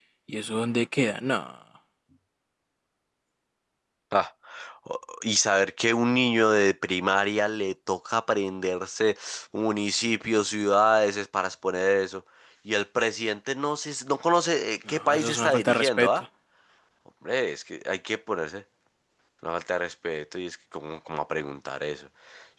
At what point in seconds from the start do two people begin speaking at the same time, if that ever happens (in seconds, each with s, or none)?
14.9 s